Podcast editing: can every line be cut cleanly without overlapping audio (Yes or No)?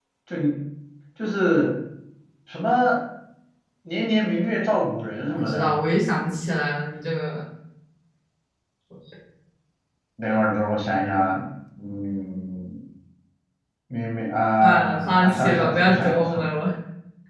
No